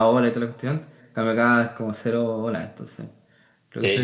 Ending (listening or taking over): taking over